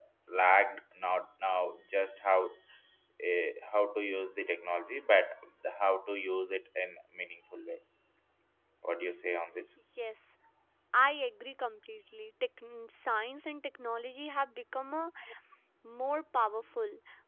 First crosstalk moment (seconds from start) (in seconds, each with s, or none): none